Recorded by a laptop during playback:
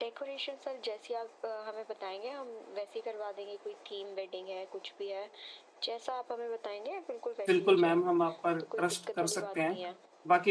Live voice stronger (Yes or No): Yes